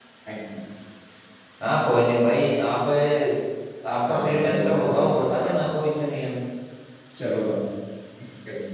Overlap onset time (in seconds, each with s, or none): 4.1 s